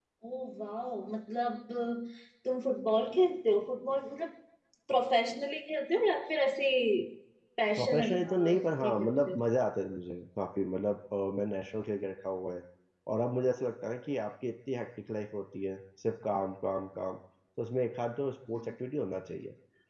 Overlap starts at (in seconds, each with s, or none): 7.8 s